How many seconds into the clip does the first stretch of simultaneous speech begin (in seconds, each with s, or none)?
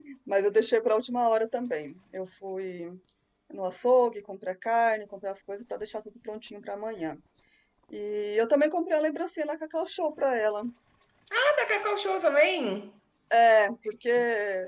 none